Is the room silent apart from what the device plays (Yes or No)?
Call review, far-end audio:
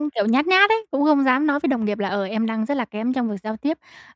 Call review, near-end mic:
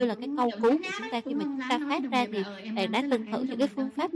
No